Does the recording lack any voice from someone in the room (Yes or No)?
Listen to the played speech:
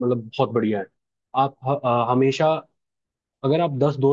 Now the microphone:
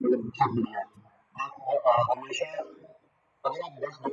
Yes